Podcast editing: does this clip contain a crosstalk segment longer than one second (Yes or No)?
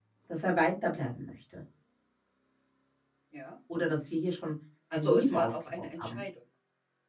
Yes